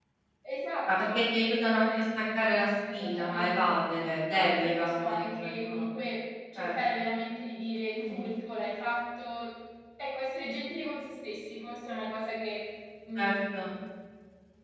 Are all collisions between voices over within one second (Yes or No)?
No